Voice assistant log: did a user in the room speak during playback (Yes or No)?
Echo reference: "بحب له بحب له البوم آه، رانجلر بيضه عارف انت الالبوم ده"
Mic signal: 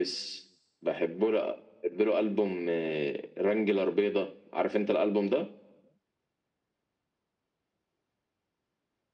No